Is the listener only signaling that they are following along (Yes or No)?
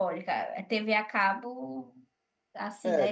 Yes